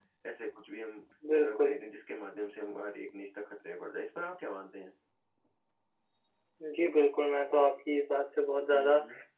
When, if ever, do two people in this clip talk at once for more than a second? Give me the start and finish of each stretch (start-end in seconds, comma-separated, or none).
none